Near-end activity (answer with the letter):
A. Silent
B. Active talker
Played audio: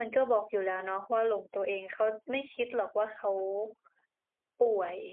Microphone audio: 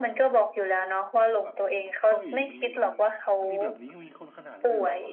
B